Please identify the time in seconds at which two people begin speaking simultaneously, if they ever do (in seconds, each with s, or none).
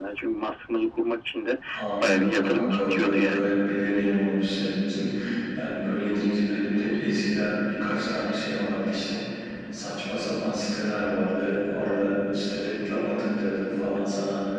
2.0 s